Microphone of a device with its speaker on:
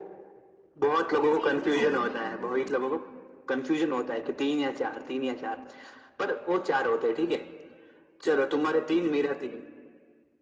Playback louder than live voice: Yes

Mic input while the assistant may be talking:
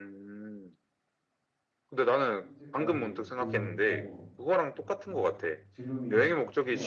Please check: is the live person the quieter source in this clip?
Yes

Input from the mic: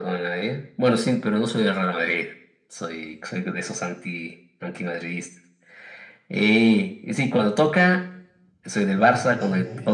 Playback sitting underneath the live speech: No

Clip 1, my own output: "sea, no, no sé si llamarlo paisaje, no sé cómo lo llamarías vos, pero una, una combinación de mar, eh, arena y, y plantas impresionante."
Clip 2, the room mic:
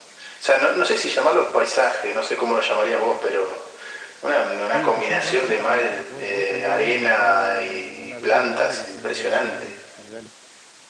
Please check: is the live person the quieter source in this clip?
Yes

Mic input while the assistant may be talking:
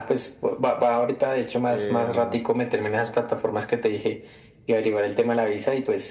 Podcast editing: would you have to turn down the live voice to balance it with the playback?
No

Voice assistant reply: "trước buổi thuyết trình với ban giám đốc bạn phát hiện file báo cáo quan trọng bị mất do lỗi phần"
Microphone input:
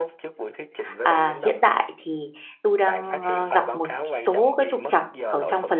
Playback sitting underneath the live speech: Yes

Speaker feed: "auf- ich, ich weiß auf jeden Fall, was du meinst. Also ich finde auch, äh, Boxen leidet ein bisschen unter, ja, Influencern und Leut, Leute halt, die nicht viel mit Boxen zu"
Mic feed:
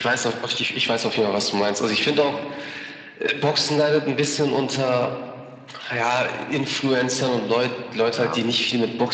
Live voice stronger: No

